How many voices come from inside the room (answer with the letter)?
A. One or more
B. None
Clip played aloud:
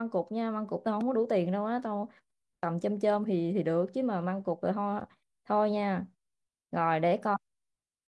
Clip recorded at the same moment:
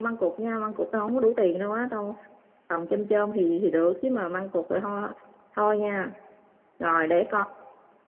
B